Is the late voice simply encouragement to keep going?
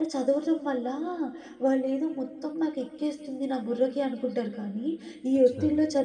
Yes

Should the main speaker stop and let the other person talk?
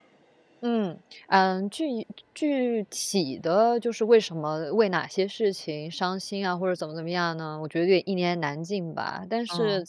No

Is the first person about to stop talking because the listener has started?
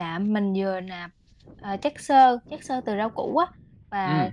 No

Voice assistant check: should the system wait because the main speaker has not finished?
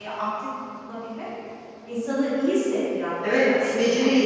No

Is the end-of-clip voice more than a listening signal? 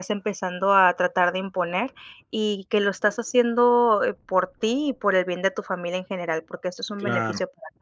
Yes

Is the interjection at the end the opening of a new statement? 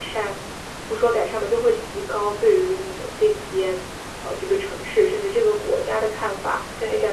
No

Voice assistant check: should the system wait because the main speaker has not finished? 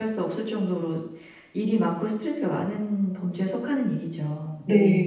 No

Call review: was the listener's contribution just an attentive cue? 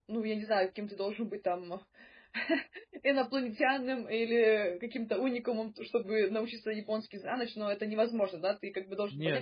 No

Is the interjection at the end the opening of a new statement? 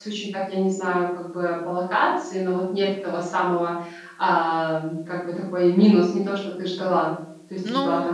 No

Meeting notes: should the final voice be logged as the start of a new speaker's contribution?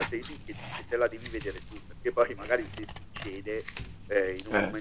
No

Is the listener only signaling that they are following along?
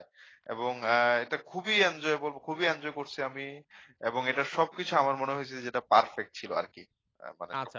No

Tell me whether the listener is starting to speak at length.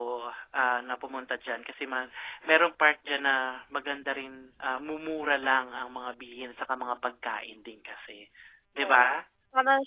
Yes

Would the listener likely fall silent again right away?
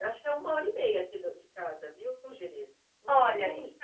No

